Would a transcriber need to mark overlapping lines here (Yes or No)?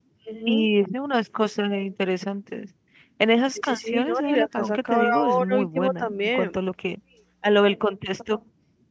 Yes